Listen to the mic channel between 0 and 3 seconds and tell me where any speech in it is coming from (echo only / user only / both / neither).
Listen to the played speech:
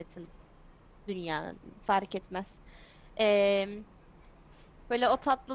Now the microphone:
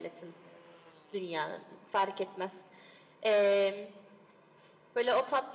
echo only